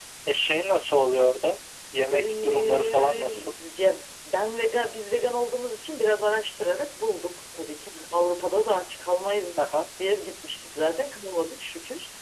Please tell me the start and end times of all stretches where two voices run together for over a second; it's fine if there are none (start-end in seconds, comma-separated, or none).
2.1-3.5